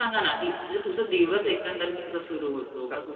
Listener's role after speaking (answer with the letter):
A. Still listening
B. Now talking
A